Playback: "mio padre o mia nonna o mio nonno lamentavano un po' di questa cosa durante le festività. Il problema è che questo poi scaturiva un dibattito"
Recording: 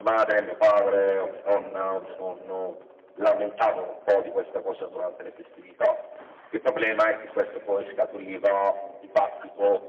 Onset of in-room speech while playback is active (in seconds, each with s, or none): none